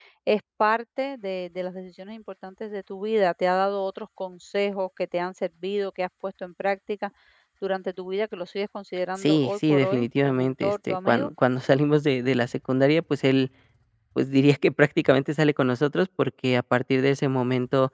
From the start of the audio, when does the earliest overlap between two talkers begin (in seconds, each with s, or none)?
9.2 s